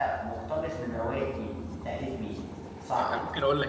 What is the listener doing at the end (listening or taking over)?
taking over